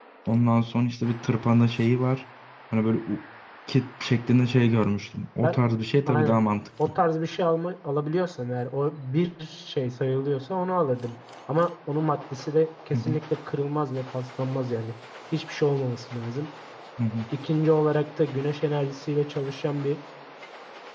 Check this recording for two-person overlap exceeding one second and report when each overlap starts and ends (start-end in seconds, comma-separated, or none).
none